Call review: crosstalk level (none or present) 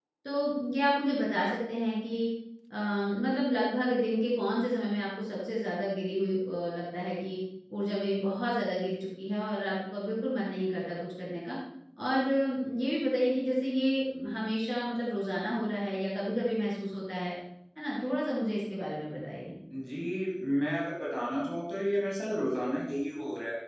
none